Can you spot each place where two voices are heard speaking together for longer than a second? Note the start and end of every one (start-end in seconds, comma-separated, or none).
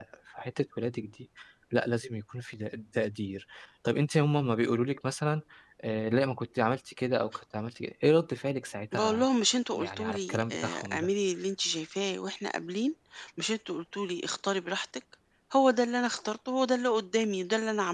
9.8-11.1